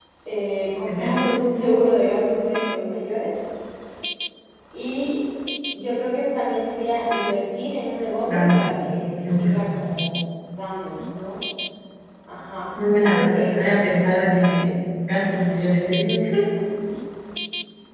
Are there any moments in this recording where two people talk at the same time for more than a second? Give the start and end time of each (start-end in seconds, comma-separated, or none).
13.0-14.6